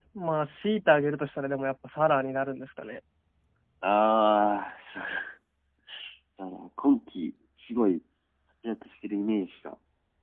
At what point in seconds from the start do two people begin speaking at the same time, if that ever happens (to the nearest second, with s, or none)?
none